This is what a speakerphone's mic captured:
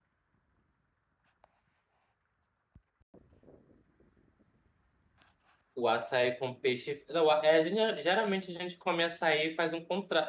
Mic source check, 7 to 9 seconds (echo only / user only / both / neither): user only